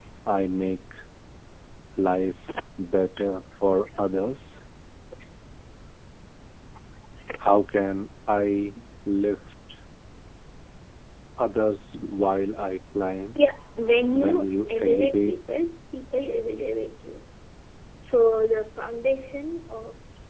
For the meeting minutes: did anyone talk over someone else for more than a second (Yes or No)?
Yes